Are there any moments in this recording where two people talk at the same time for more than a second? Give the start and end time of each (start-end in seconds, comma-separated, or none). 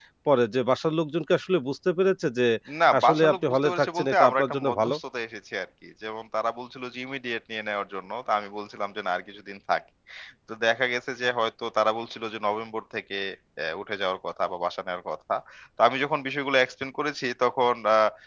3.0-5.0